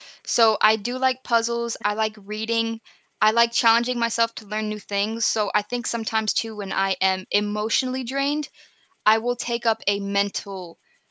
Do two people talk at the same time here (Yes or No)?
No